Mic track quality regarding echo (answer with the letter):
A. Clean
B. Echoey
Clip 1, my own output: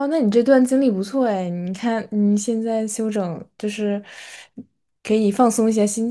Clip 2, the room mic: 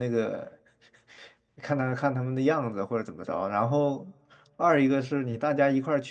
A